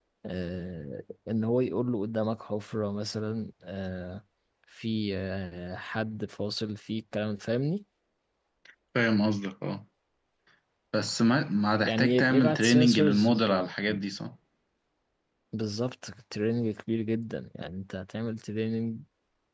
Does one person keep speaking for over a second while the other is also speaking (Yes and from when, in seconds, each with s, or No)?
Yes, from 11.8 s